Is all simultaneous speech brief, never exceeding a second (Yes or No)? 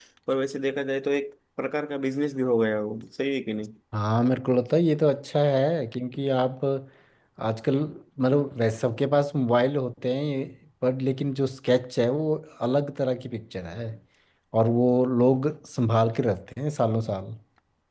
Yes